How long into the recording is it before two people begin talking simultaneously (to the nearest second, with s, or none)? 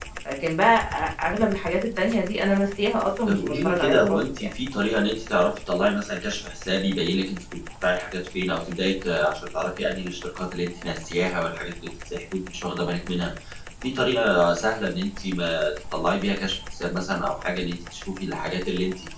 3 s